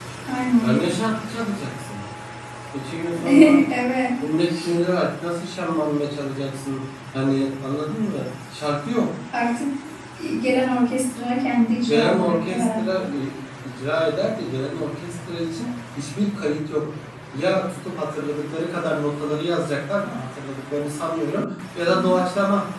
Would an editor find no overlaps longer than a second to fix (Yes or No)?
No